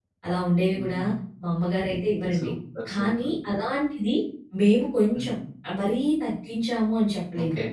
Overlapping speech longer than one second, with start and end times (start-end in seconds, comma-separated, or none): none